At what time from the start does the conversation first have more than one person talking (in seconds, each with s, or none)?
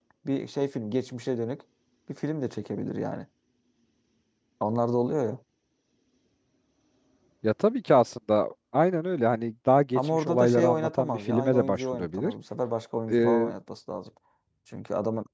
9.9 s